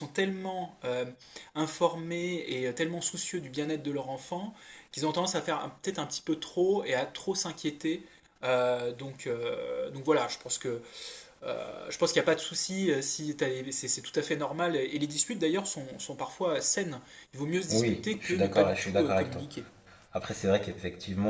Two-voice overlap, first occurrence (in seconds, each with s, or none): 17.7 s